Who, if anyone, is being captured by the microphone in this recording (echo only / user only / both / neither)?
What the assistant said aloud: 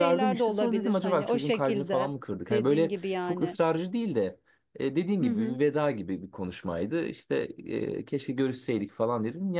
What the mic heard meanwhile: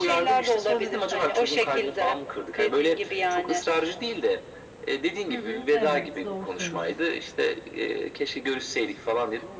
both